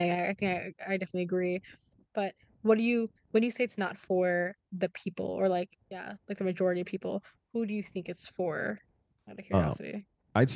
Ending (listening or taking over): taking over